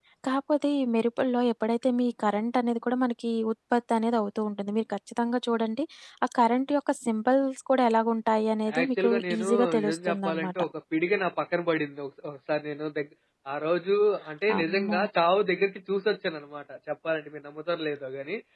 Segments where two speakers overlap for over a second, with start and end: 8.8-10.6

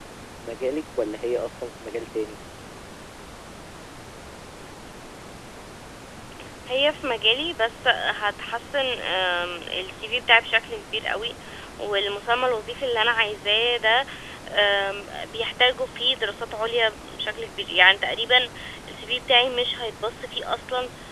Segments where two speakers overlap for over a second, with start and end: none

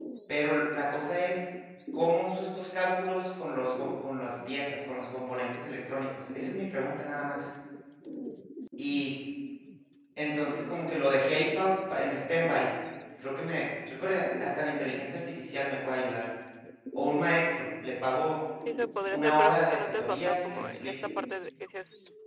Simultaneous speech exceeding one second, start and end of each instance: 19.1-20.9

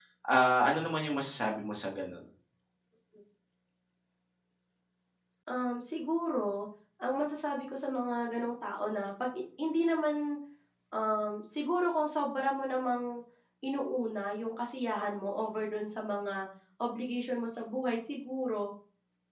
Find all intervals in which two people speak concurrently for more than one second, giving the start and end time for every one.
none

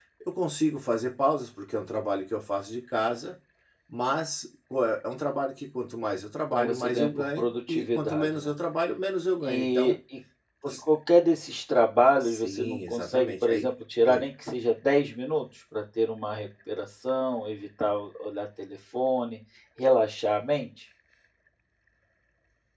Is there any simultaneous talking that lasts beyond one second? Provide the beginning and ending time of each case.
6.5-8.5, 12.2-13.7

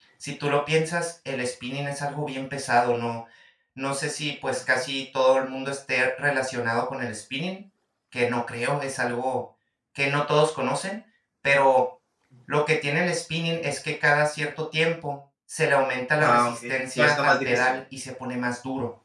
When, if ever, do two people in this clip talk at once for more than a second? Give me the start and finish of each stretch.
16.2-17.8

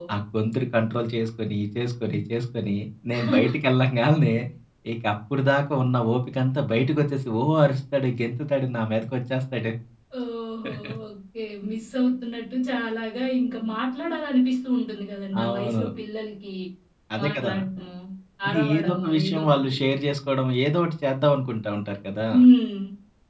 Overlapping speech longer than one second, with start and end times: 18.5-19.8

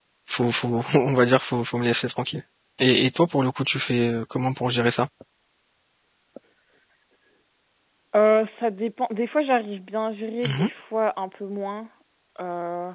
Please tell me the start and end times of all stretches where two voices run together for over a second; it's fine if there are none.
none

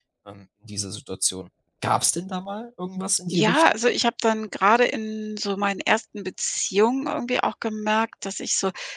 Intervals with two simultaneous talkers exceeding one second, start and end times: none

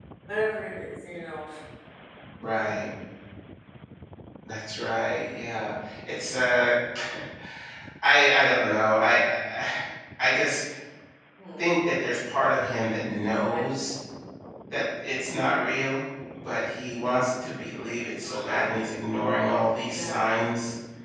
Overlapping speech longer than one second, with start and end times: none

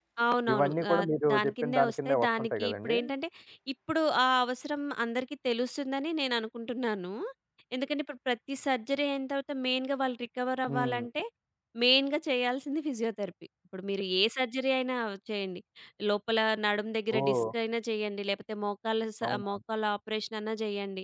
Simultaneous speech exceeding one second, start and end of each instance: 0.5-3.0

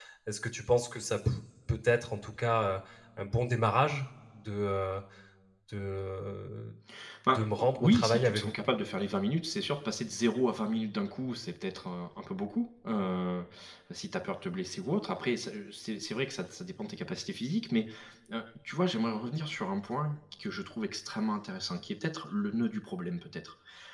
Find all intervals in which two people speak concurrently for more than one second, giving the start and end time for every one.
7.3-8.5

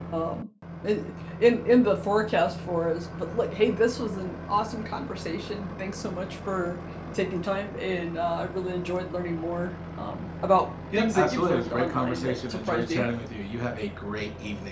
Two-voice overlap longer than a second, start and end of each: 11.0-13.1

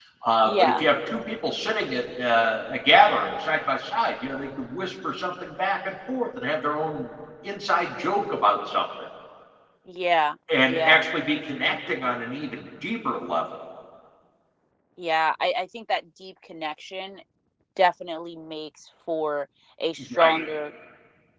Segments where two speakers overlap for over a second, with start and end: none

